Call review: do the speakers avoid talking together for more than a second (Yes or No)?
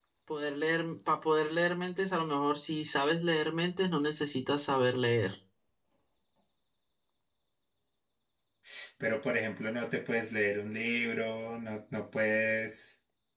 Yes